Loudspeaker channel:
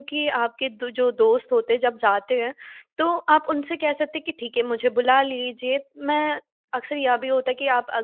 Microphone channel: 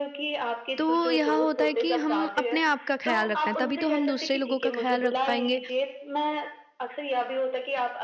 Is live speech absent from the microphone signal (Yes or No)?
No